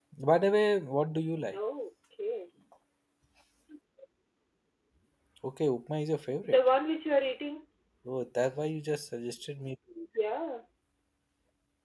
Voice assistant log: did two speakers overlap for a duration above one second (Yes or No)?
No